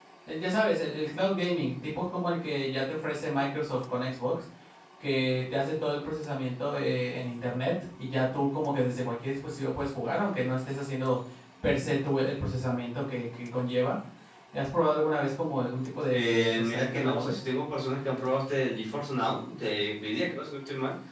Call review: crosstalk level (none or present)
present